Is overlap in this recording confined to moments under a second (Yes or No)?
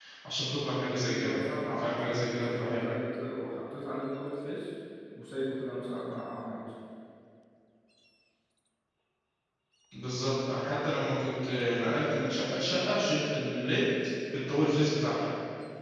No